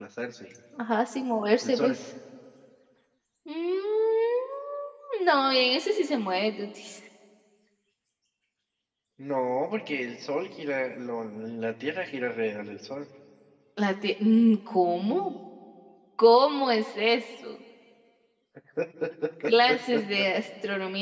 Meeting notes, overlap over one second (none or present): none